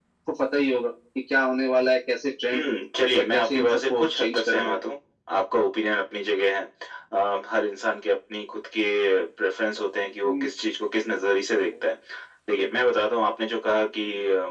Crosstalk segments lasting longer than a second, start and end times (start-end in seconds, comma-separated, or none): 3.1-4.8